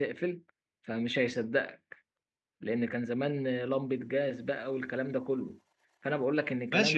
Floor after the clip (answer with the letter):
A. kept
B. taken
B